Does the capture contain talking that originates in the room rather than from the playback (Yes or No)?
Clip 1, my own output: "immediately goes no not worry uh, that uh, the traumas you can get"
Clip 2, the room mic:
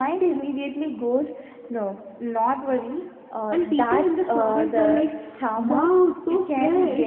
Yes